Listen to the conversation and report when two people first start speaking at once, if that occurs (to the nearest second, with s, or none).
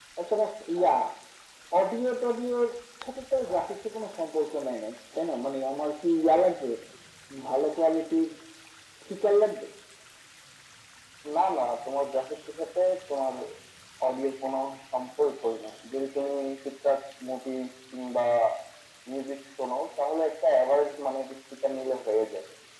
none